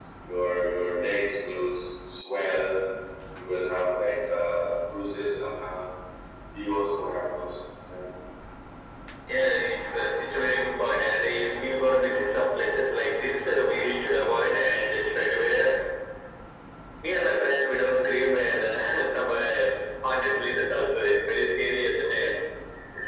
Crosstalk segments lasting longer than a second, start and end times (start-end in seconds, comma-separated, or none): none